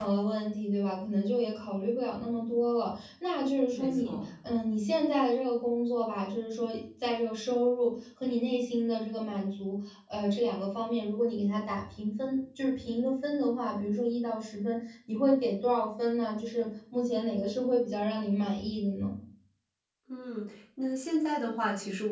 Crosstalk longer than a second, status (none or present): none